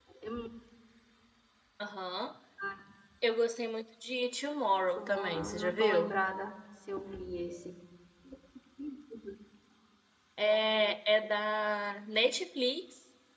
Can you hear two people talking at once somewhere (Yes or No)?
Yes